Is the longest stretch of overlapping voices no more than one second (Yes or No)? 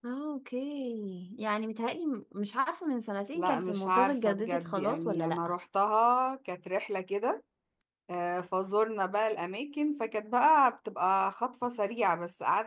No